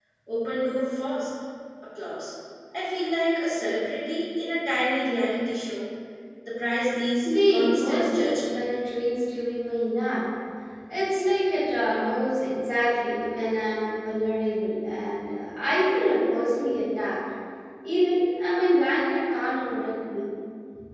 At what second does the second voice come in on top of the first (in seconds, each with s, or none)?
7.2 s